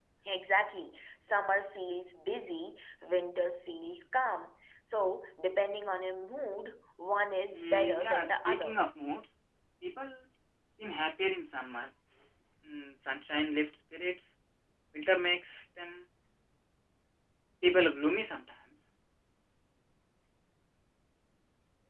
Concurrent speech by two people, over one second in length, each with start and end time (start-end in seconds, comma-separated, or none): 7.5-8.8